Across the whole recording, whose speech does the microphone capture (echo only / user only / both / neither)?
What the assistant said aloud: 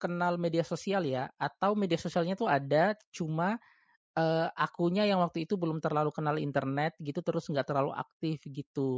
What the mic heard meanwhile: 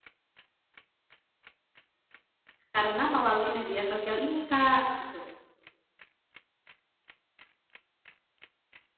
user only